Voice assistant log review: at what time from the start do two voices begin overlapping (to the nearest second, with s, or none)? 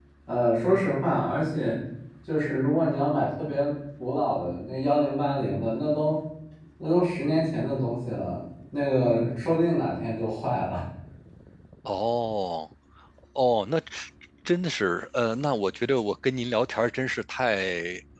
none